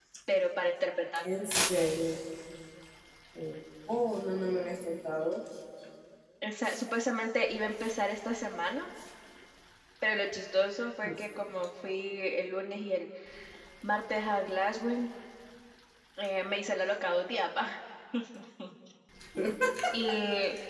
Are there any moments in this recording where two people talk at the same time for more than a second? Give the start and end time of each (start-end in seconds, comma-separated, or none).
none